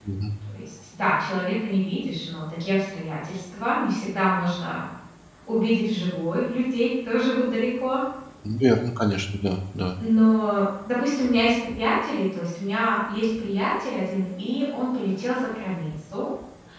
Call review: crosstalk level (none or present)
none